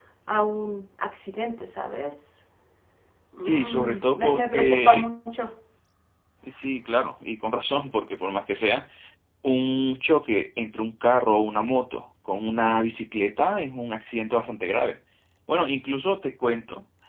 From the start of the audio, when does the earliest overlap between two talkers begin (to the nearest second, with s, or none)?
3 s